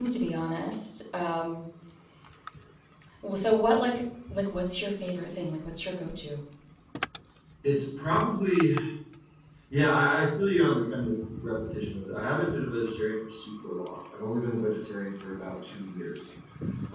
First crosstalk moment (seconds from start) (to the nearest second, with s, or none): none